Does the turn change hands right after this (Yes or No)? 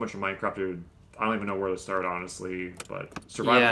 Yes